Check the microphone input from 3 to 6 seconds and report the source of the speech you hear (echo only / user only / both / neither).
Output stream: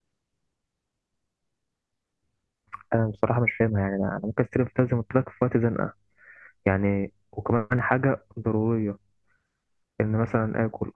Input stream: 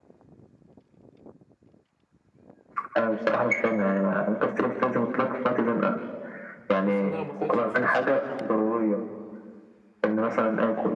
echo only